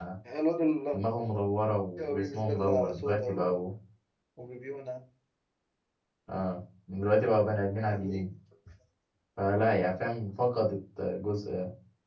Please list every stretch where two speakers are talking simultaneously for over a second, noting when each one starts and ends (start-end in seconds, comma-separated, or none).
2.0-3.5